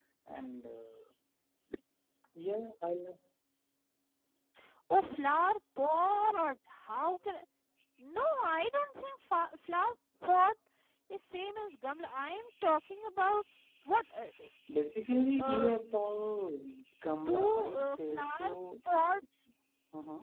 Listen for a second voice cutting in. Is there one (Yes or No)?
Yes